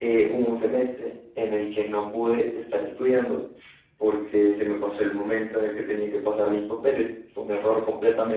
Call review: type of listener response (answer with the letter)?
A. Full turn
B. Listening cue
B